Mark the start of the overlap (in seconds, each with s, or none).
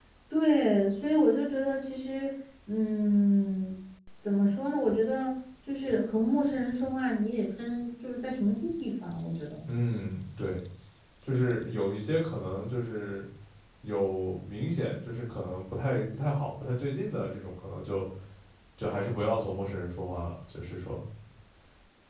none